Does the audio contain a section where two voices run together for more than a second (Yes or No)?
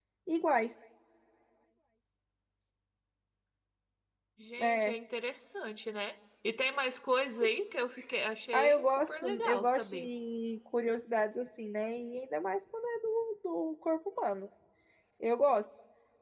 Yes